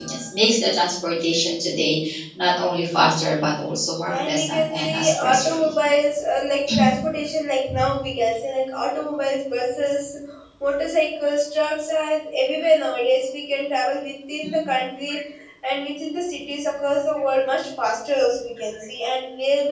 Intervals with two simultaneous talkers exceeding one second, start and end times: 4.1-5.7

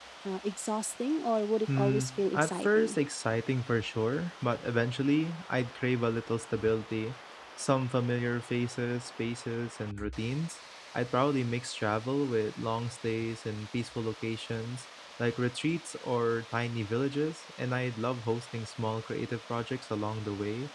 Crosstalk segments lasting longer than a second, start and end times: 1.8-3.0

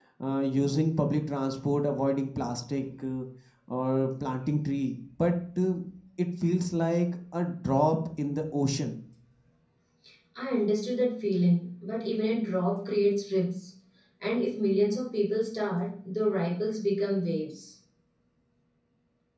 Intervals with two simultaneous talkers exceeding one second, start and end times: none

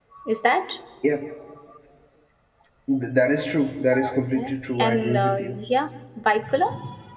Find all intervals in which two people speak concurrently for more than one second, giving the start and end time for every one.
4.1-5.3

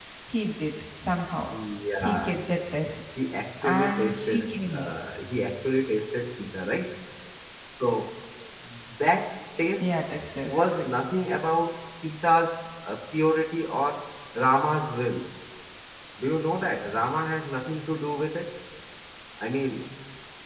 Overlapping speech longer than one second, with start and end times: 3.6-4.9

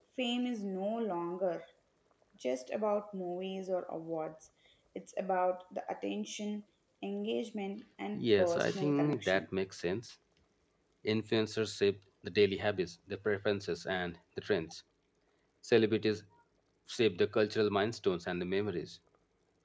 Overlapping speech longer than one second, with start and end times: 8.1-9.4

